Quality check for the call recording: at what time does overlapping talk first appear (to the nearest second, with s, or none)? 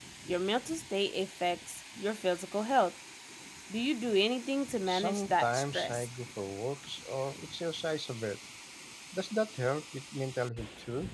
5 s